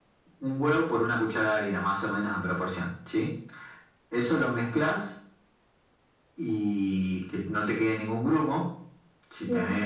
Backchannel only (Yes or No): Yes